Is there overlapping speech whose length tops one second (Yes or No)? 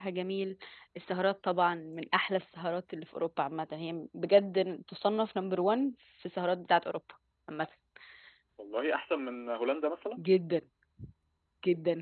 No